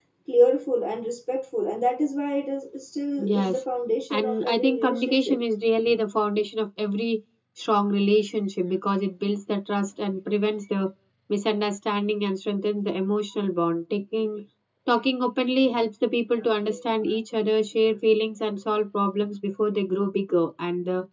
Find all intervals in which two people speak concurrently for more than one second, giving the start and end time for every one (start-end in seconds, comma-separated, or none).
4.1-5.4